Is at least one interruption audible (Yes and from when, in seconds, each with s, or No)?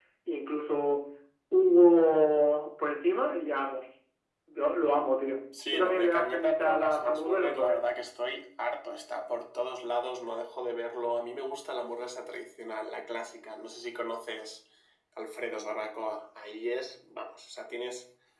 Yes, from 5.5 s